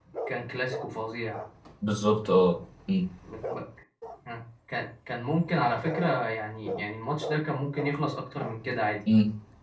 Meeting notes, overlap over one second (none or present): none